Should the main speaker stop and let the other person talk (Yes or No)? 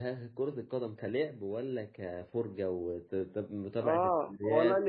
Yes